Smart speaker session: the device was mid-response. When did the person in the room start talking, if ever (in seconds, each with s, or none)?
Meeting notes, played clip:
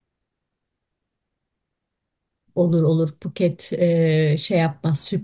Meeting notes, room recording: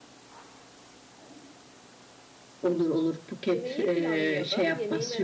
3.5 s